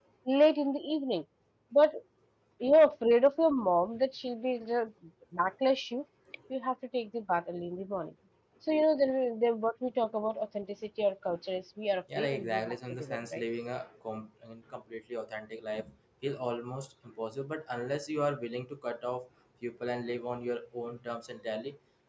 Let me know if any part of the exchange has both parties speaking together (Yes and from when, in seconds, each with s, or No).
Yes, from 12.1 s